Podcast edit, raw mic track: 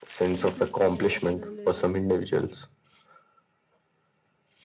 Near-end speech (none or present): present